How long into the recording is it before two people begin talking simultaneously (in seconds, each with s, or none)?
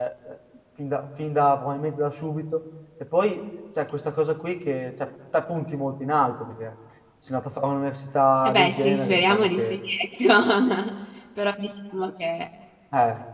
8.4 s